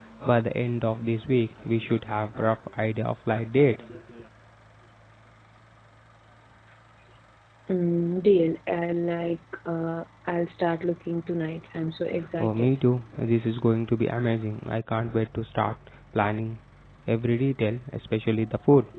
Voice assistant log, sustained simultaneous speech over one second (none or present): none